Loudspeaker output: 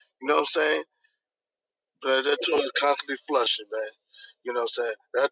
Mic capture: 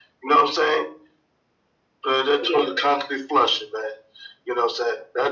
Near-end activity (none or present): none